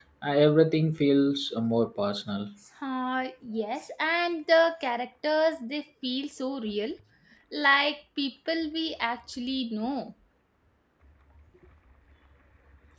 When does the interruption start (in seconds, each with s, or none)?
none